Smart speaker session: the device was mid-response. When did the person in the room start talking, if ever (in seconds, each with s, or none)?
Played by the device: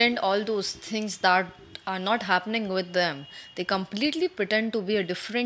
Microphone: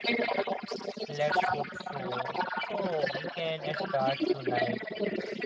1.1 s